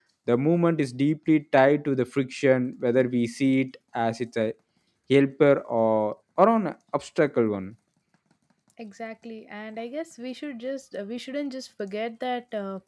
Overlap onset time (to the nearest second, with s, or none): none